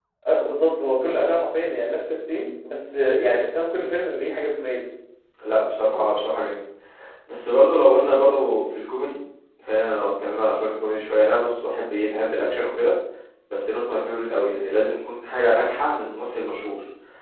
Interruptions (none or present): none